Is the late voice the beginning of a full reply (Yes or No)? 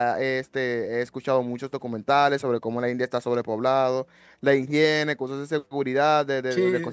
Yes